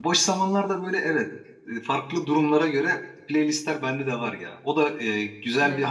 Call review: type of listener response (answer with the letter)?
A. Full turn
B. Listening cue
B